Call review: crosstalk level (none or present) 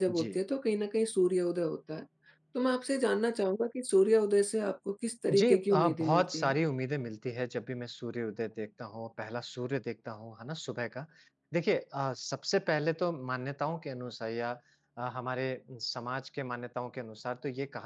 present